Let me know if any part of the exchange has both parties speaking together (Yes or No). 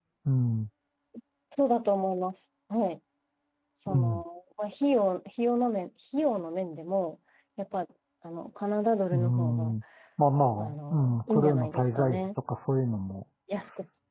Yes